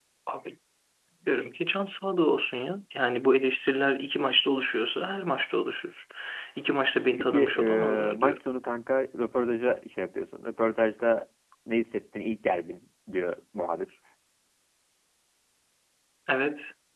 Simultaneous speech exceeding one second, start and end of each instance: 7.2-8.4

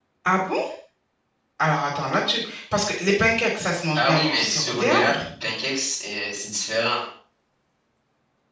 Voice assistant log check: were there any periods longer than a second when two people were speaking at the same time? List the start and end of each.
4.0-5.2

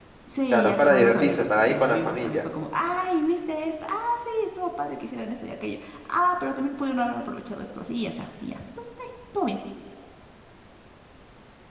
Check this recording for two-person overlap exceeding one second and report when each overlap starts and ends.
0.5-2.4

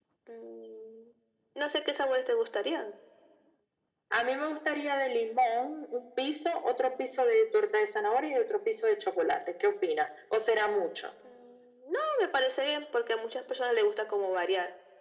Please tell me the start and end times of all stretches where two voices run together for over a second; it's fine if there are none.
none

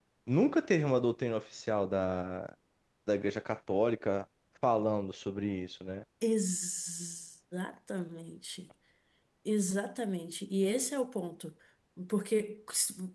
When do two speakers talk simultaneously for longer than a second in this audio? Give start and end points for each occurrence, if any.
none

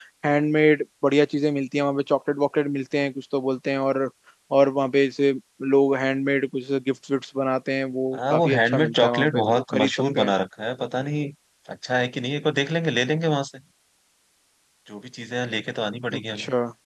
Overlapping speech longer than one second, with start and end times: 8.1-10.3

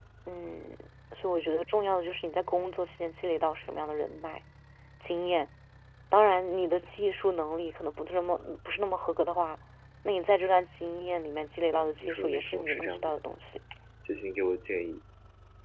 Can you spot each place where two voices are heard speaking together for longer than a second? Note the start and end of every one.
11.7-13.1

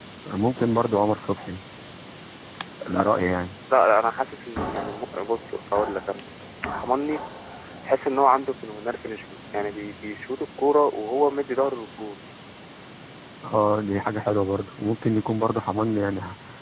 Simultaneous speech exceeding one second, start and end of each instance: none

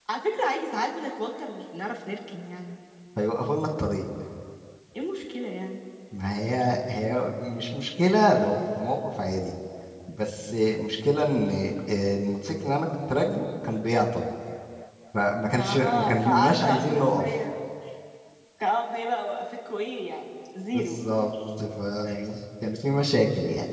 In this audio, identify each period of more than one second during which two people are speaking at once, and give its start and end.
15.5-17.2

